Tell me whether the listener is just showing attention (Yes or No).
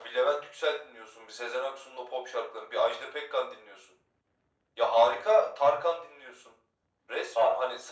Yes